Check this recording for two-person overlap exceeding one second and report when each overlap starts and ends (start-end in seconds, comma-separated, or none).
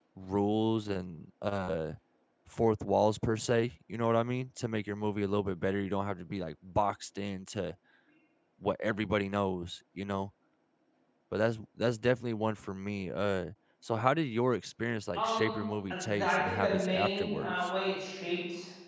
15.9-17.6